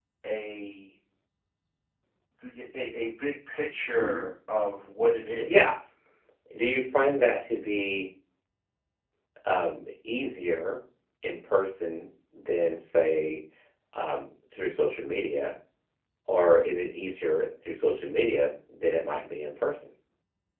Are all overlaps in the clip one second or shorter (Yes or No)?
Yes